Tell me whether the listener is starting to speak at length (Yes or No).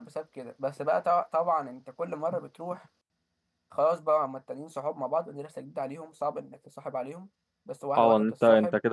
Yes